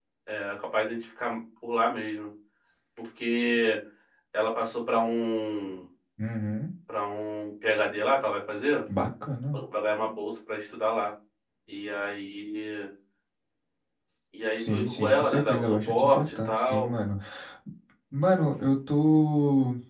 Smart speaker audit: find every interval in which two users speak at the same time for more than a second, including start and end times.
14.5-16.9

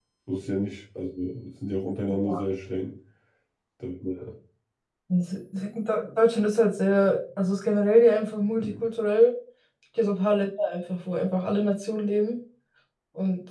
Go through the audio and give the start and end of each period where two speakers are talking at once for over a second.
none

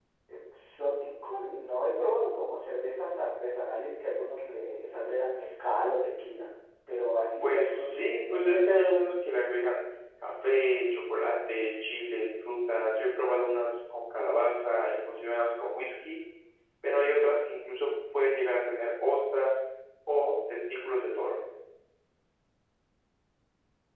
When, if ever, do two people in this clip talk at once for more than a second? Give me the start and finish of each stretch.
7.4-8.8

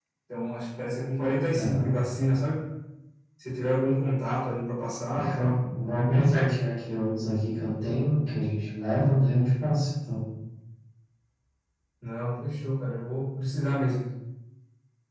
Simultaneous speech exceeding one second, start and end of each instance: none

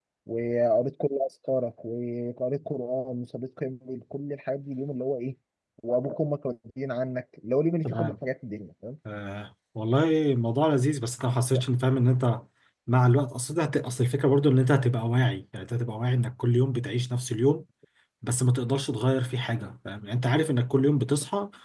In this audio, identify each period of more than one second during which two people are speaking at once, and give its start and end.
none

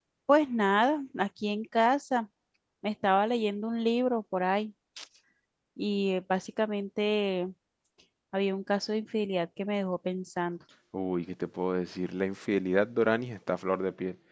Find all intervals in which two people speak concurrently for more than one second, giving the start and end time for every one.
none

